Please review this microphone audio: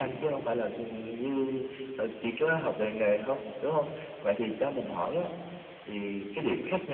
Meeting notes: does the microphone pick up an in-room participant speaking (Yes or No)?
No